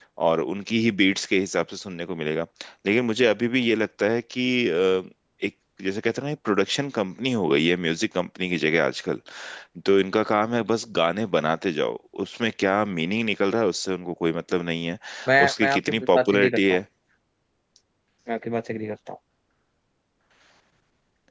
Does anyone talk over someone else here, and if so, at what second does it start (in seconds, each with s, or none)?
15.5 s